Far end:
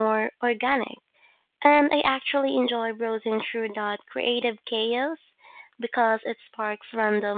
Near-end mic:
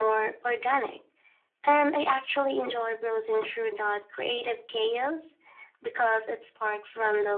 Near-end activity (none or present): none